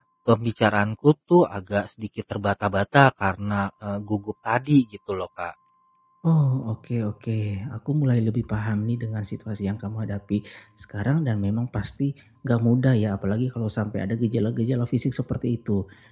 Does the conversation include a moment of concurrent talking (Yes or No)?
No